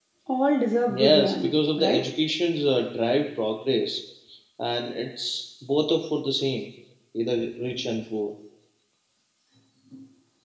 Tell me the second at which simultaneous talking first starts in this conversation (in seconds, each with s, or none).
0.9 s